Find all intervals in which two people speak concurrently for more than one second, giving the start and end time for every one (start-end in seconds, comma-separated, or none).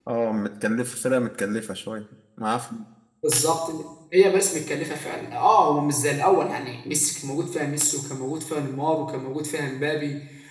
none